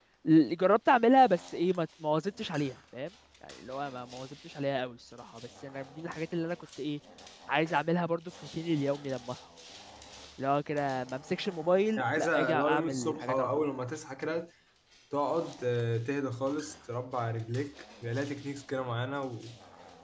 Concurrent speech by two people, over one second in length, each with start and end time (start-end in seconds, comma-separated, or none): 12.0-13.6